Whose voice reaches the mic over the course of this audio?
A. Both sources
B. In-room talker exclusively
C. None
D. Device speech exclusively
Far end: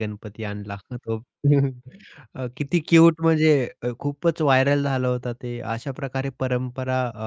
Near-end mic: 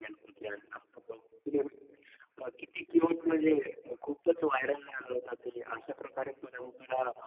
D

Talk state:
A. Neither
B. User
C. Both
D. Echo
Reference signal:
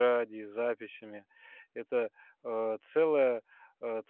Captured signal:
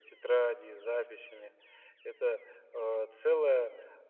D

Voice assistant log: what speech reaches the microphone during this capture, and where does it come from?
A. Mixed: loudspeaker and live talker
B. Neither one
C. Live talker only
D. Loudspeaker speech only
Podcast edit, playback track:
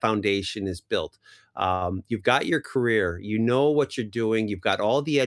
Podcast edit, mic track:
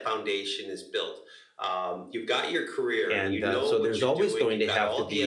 A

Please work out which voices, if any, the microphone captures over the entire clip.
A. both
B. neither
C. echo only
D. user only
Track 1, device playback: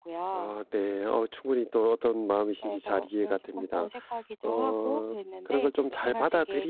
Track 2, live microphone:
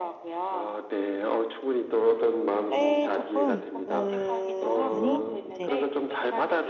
A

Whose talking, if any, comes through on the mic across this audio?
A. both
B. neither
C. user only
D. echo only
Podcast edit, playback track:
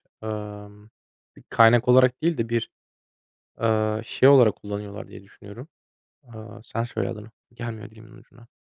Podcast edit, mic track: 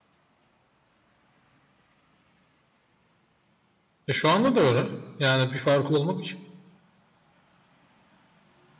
C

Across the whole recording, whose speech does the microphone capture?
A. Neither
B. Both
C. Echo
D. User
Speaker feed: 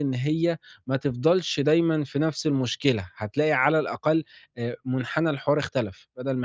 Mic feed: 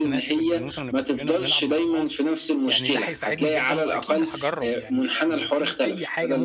B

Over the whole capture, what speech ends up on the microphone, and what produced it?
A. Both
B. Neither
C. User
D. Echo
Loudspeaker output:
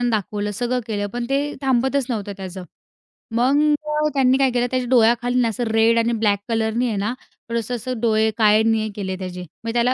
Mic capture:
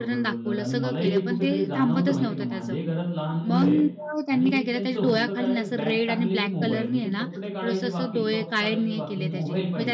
A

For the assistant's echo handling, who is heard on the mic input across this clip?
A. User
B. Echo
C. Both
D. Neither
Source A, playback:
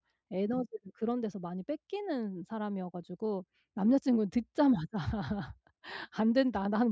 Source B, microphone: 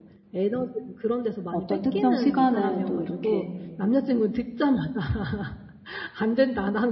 C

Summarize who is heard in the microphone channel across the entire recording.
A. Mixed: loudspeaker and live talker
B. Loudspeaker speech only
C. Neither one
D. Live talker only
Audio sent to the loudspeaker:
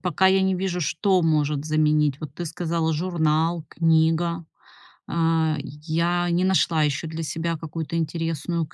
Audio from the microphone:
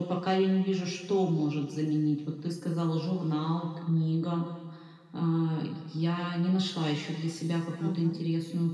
A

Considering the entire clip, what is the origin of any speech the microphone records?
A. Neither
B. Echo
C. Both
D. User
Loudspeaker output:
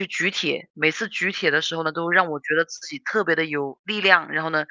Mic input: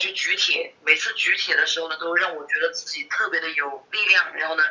B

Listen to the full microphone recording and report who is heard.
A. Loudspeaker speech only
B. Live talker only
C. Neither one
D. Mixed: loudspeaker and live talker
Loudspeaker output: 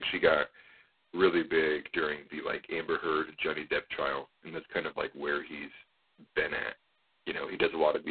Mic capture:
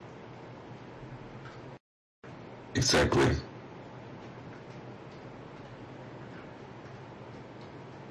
B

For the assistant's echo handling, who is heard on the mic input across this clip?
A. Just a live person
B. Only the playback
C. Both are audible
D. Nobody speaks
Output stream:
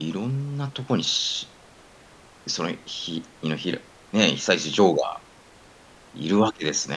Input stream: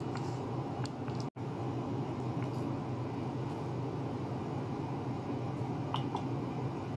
D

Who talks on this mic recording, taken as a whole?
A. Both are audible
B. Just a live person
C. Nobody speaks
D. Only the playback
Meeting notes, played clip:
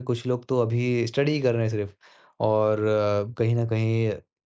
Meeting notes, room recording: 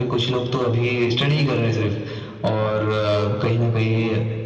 A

